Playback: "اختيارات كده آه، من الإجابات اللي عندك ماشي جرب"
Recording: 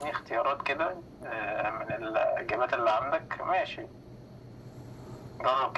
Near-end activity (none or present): none